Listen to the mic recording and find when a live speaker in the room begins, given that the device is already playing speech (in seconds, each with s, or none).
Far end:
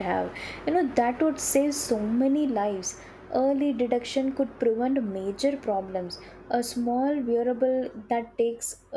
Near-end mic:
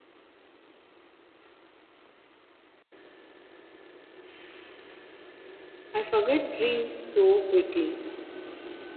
5.9 s